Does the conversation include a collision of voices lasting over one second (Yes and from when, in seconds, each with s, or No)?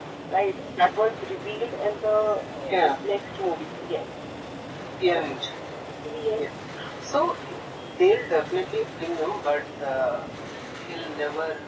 No